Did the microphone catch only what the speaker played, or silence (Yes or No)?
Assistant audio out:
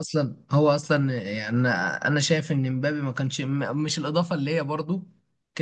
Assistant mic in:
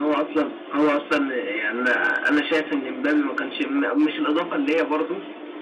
Yes